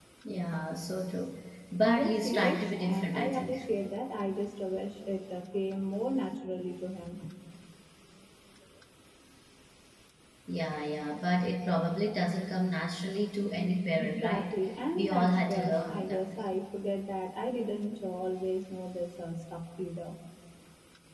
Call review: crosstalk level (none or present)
present